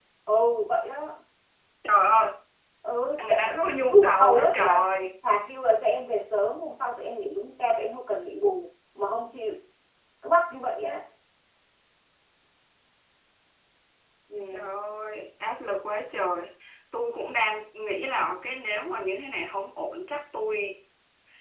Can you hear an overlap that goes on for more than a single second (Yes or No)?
Yes